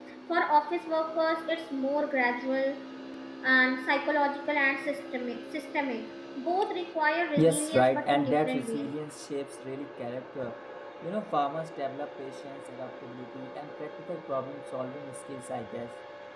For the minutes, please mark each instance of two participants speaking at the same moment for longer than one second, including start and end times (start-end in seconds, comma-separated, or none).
7.4-8.9